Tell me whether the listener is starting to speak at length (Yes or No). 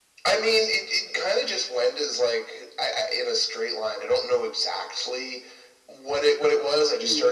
No